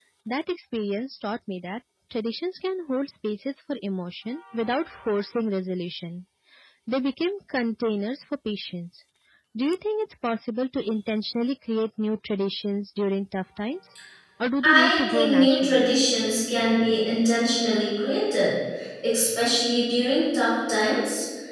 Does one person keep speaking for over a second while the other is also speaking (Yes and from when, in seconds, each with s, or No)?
Yes, from 14.6 s